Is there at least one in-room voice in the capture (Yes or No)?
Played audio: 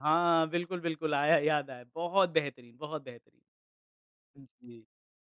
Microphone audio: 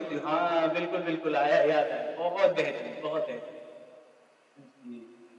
No